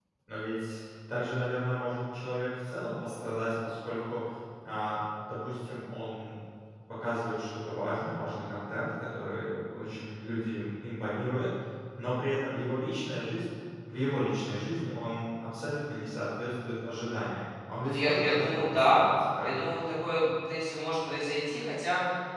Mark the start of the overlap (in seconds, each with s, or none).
17.8 s